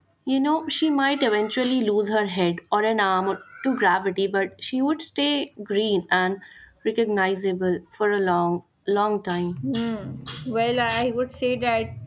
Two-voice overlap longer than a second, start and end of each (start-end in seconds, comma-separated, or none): none